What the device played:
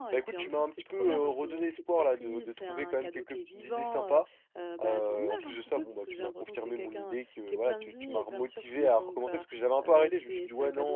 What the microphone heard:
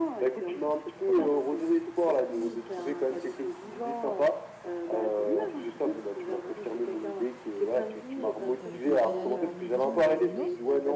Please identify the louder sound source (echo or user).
echo